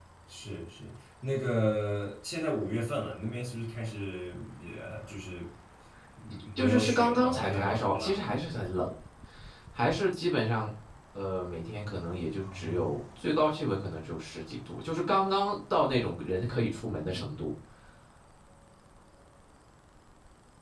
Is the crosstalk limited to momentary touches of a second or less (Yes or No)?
No